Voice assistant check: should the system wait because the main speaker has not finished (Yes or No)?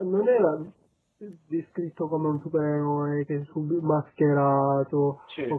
Yes